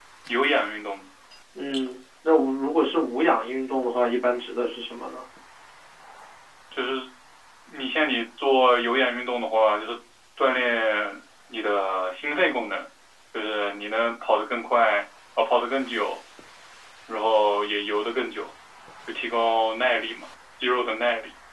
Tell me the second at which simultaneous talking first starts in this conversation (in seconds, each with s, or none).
none